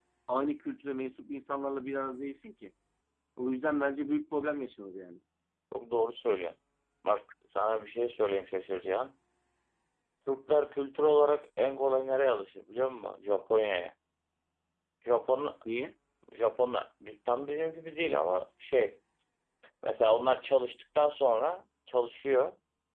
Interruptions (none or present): none